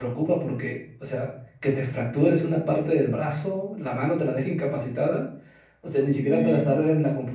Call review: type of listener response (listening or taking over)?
listening